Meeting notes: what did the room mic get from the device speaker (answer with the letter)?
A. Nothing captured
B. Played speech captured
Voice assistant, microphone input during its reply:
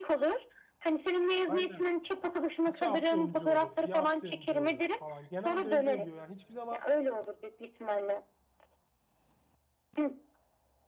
B